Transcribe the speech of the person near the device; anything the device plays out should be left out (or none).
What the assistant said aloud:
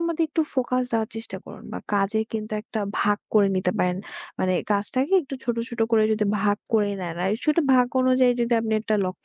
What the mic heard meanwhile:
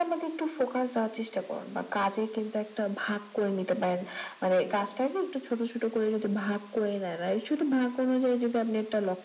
none